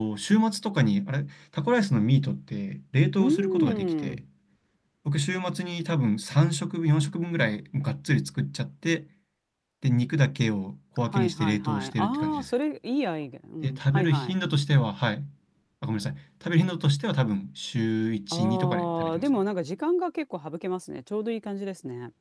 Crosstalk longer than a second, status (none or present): present